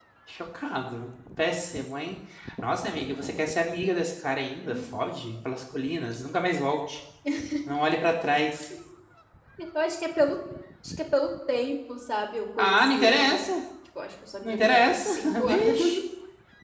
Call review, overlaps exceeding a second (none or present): present